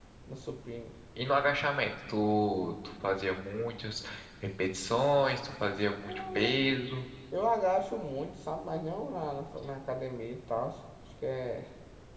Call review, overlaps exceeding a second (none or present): none